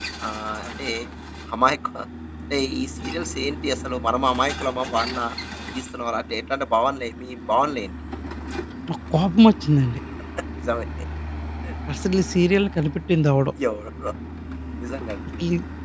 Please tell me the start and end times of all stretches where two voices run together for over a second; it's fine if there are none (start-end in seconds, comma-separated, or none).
none